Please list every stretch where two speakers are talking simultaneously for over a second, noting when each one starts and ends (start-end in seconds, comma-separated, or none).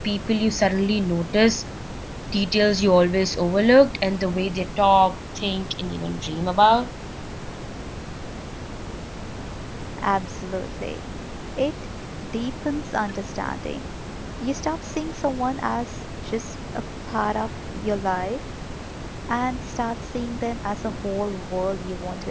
none